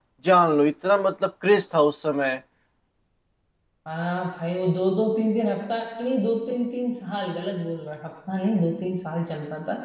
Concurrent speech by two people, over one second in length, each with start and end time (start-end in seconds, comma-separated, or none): none